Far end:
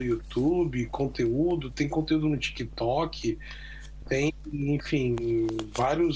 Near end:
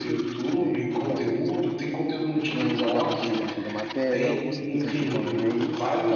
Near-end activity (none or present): present